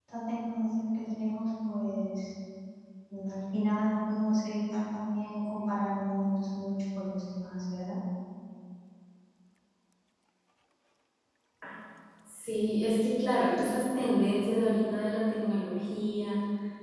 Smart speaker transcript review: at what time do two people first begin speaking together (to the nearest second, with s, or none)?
none